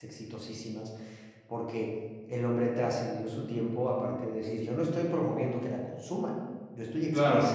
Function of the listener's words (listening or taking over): listening